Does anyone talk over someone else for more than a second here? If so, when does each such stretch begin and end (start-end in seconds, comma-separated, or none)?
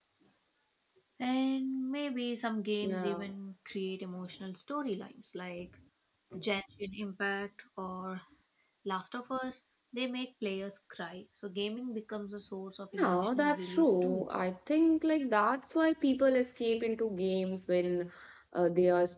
13.0-14.3